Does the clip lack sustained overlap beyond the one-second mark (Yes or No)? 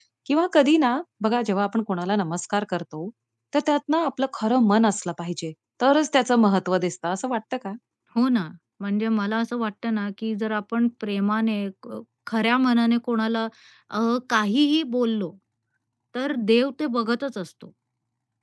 Yes